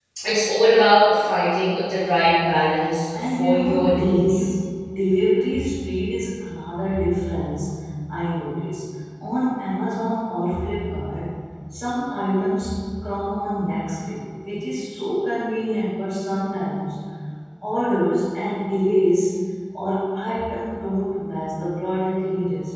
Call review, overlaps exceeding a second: present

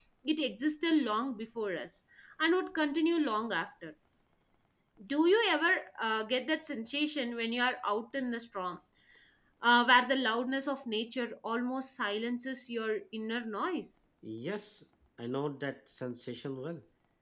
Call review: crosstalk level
none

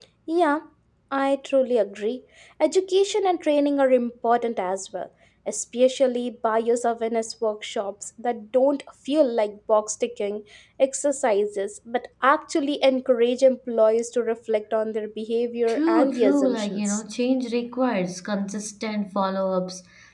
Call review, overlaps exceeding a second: present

